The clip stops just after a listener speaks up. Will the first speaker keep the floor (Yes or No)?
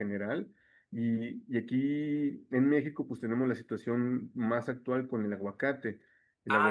No